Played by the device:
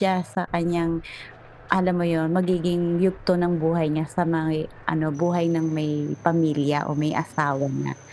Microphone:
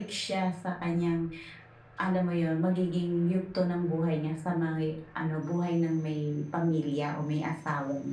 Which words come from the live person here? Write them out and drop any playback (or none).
none